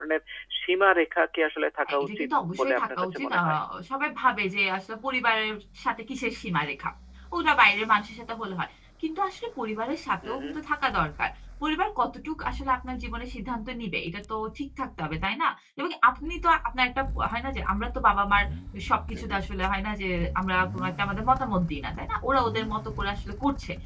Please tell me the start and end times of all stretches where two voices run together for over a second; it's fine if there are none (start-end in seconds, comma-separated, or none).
1.9-3.4